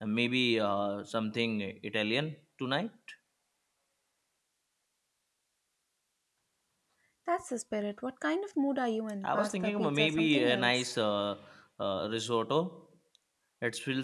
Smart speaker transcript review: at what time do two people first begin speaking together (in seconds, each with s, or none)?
9.2 s